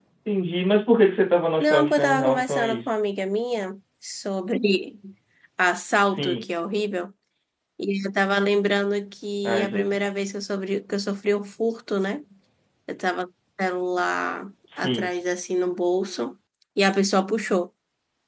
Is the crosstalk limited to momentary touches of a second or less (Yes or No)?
No